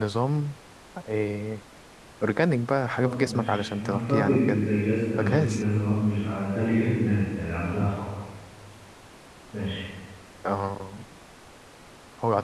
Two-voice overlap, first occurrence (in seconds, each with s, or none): 2.9 s